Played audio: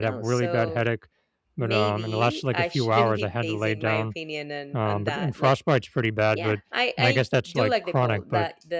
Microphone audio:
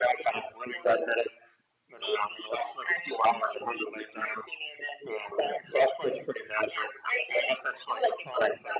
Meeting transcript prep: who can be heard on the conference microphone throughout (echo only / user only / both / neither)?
echo only